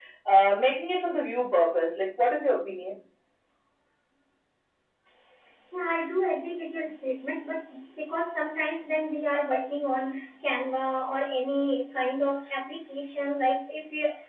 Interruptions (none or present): none